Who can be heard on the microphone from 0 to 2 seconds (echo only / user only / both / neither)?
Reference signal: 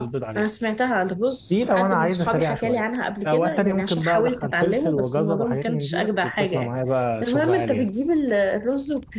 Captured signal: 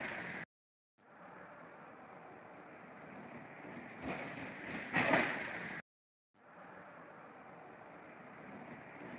neither